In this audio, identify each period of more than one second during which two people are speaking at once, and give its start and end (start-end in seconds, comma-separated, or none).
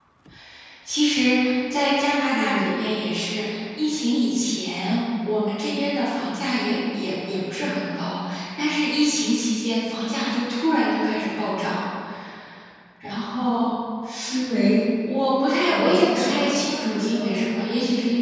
15.7-17.6